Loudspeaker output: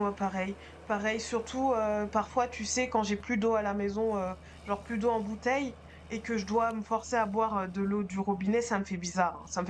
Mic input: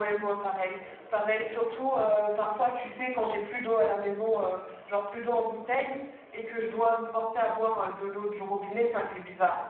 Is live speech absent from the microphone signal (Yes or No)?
Yes